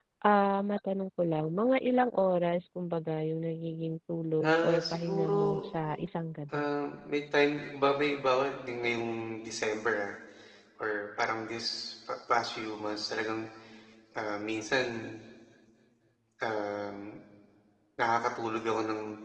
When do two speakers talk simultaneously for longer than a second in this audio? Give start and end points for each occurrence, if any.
4.4-5.7

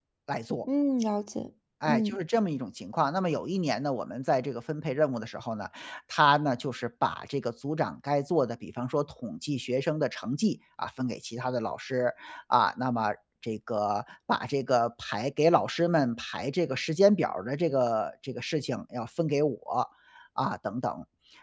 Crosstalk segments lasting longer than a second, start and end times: none

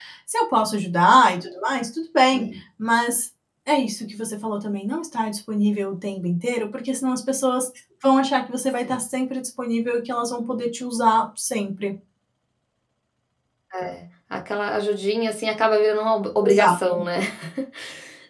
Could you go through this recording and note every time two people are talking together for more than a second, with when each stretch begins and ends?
none

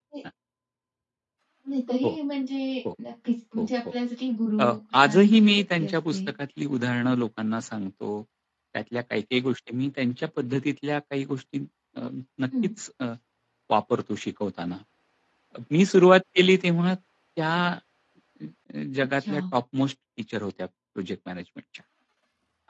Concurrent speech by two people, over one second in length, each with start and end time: 4.6-6.2

